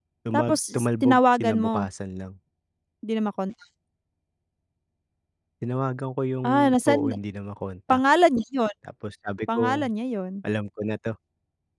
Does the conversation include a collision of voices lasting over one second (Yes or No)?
Yes